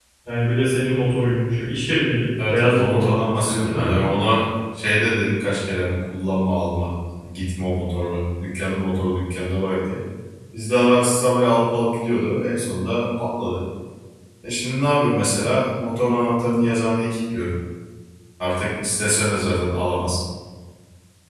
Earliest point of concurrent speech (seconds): 2.4 s

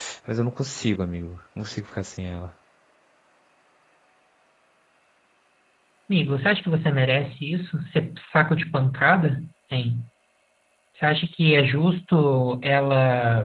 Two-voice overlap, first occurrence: none

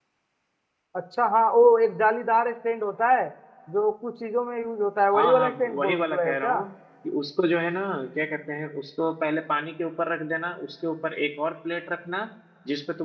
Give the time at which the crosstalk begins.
5.1 s

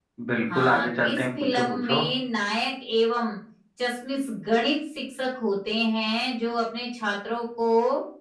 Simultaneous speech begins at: 0.5 s

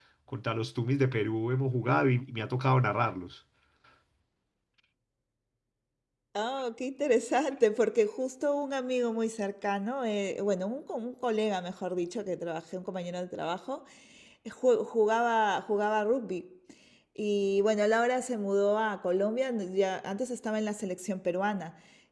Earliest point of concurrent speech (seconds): none

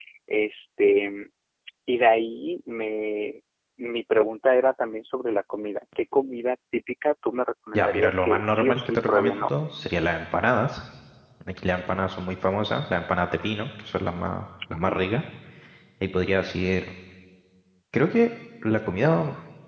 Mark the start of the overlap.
7.7 s

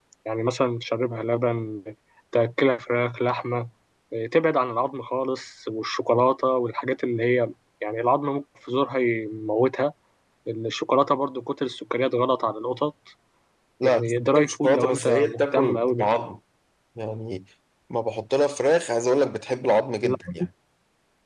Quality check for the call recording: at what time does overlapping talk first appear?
13.8 s

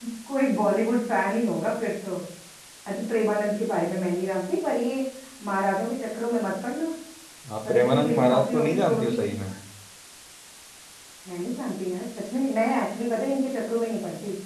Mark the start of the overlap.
7.6 s

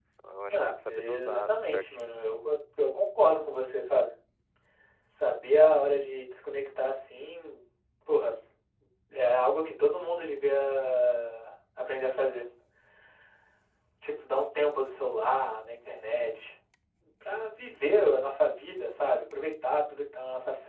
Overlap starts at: 0.5 s

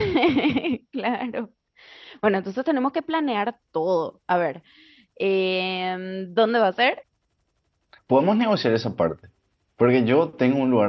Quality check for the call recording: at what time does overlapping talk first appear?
none

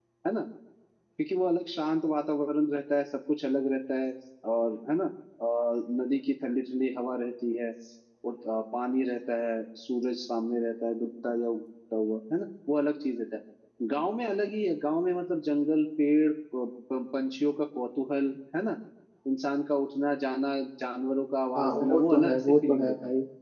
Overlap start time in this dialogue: 21.5 s

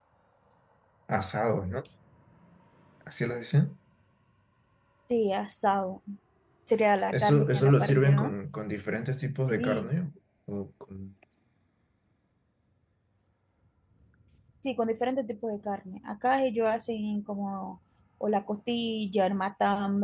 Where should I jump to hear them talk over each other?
7.1 s

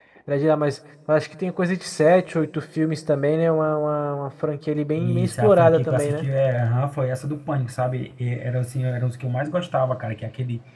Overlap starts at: 5.0 s

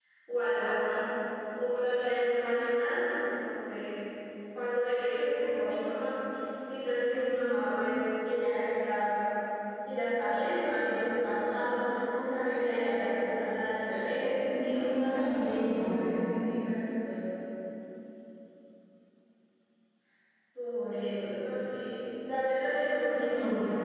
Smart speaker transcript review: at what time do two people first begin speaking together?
14.5 s

